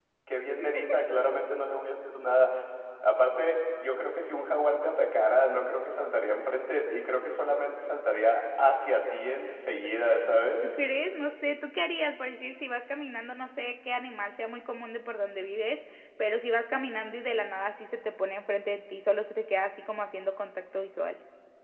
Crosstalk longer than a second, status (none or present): none